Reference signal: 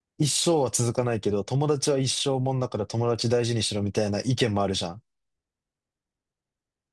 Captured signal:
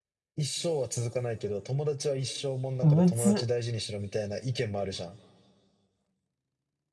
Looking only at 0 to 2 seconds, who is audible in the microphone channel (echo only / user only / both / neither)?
echo only